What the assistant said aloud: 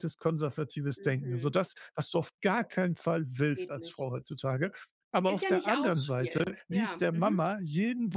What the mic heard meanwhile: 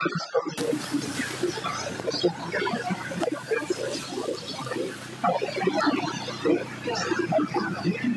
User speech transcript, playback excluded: none

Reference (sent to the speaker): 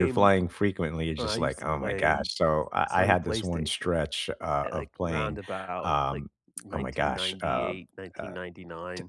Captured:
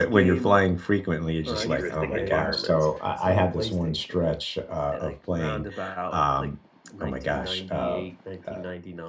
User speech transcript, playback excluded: futuristic environments,

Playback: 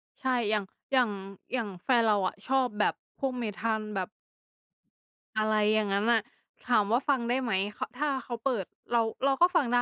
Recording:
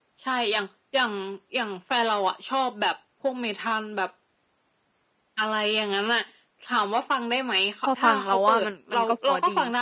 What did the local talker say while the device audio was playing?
พอฟังเราว่ามัน มันก็เพราะดี

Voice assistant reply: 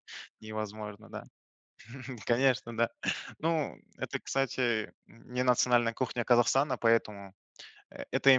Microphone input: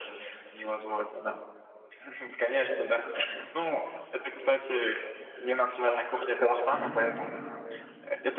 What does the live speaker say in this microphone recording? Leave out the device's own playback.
Мгм.

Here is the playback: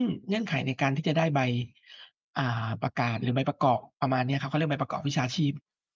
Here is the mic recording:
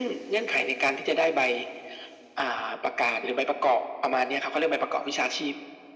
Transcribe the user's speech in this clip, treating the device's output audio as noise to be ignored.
none

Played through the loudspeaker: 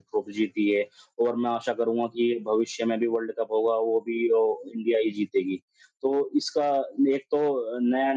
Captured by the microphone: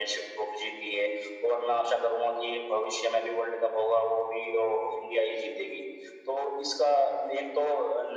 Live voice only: none

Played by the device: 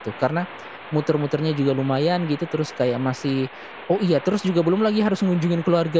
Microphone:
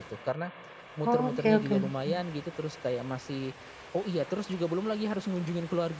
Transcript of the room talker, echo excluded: Oke oke oke.

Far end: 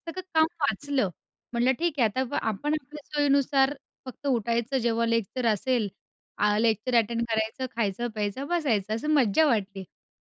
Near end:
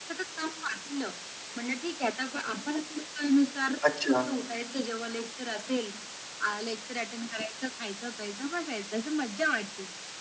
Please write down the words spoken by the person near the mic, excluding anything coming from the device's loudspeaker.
अच्छा.

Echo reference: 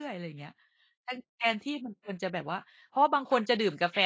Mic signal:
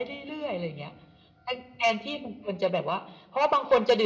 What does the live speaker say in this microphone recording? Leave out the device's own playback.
none

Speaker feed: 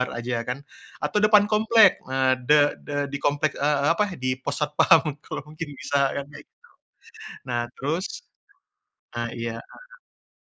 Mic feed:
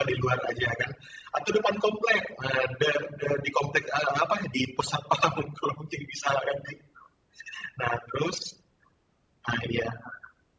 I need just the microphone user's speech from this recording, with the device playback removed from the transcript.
none

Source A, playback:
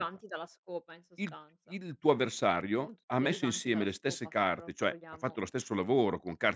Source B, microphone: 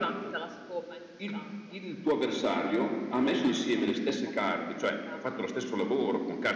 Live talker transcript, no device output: none

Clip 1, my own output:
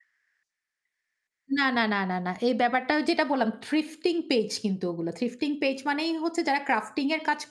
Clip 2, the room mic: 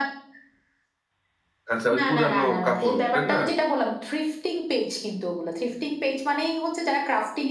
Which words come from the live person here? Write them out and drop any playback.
আচ্ছা, ওই পুরানো কাপড়, তাই না?

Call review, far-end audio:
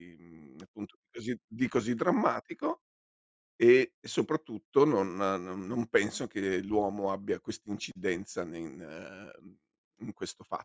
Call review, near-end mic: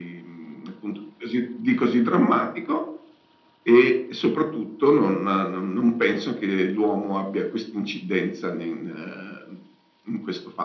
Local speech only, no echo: none

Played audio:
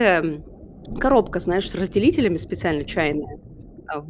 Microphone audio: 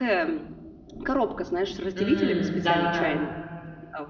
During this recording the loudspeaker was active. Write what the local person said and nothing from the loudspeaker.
М, да-да-да.

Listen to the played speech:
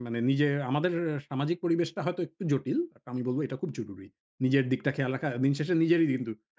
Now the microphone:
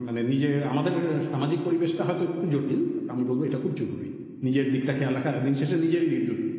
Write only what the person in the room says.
none

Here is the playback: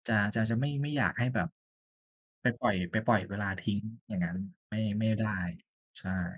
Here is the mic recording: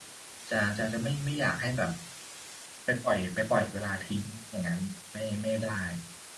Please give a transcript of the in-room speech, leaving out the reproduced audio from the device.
none

